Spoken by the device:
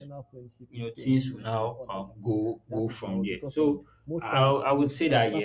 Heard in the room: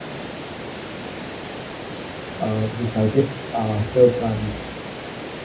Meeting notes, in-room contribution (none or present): present